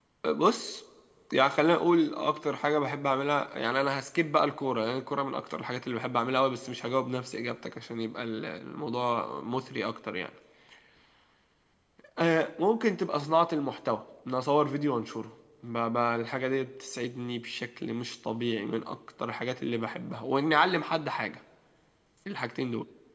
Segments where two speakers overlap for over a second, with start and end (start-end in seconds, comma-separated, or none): none